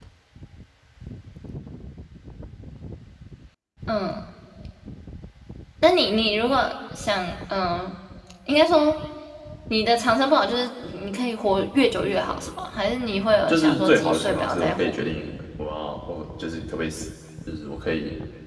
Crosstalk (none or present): present